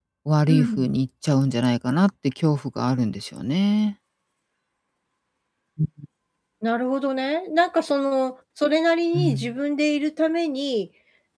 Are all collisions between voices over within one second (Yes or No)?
Yes